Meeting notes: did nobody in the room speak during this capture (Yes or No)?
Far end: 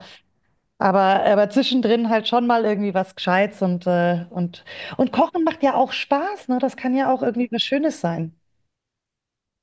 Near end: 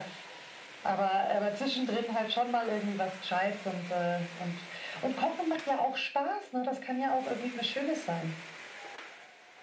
Yes